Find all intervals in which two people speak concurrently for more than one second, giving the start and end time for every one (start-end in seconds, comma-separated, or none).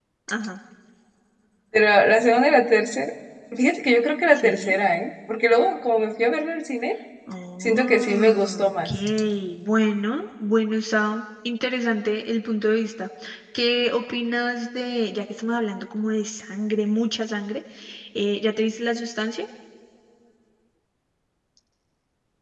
7.6-8.9